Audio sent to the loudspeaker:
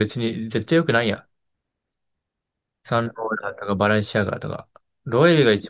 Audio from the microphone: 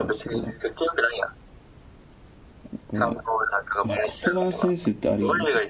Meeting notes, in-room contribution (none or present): present